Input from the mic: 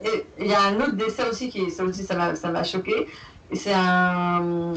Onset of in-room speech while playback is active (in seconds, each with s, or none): none